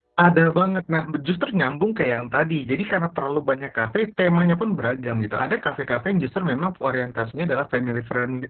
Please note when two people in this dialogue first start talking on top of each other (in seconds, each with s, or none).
none